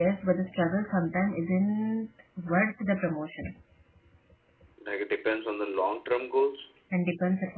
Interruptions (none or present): none